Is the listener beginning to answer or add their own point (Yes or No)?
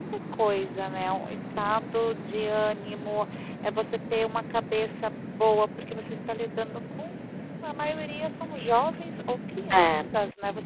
No